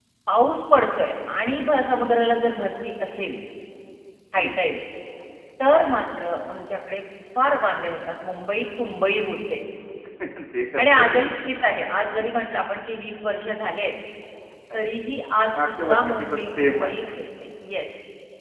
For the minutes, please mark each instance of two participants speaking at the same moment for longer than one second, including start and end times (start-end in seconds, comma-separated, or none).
15.5-16.9